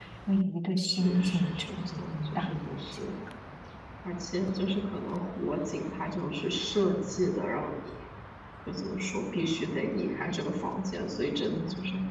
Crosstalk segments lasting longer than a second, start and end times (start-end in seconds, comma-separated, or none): 0.8-3.0